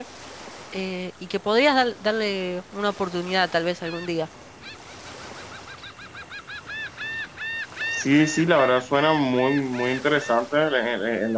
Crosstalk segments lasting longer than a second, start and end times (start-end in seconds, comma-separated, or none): none